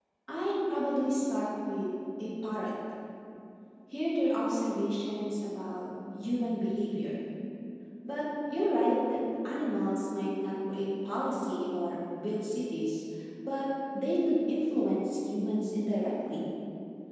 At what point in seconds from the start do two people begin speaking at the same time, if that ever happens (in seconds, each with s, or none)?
none